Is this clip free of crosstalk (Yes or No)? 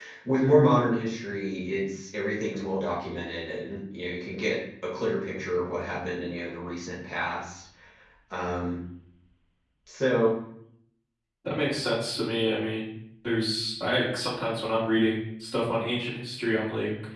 Yes